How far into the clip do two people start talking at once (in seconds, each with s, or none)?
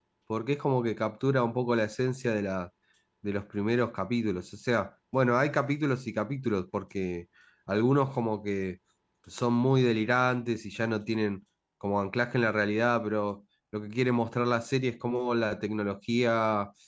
none